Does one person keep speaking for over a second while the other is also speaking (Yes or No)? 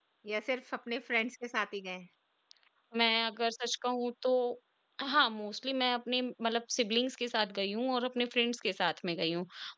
No